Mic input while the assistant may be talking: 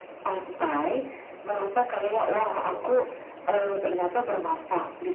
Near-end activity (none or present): present